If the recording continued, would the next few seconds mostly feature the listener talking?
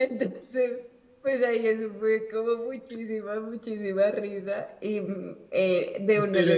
Yes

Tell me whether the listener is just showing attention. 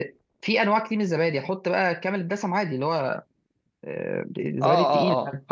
No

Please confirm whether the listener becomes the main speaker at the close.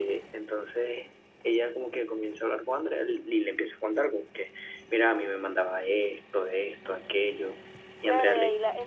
Yes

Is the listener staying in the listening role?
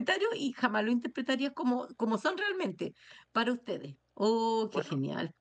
No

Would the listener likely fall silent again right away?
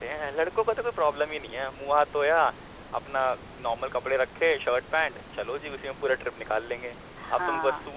Yes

